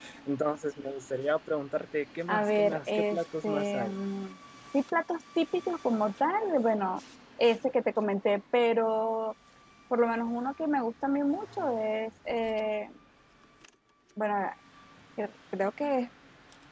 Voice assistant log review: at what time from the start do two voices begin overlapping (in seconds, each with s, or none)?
2.3 s